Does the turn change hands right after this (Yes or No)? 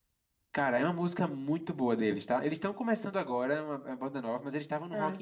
No